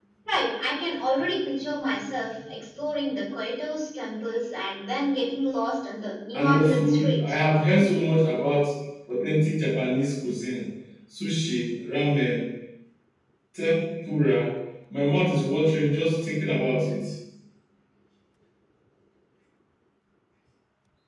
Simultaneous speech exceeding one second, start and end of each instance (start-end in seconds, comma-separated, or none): 6.4-8.0